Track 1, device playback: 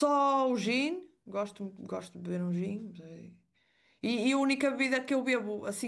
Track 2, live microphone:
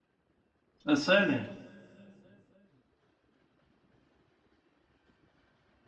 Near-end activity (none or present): present